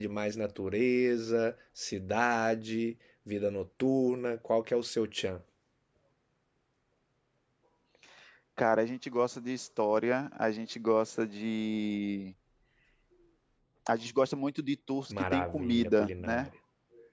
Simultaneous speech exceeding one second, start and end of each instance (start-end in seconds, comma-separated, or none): 15.2-16.5